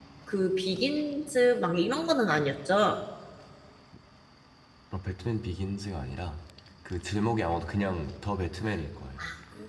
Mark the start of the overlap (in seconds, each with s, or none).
none